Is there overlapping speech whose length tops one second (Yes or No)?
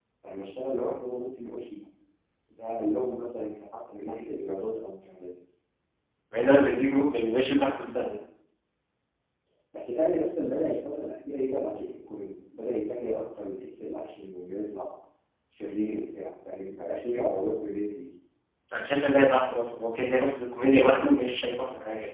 No